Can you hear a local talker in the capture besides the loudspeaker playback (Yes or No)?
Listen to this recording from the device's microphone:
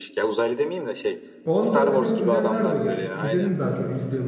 Yes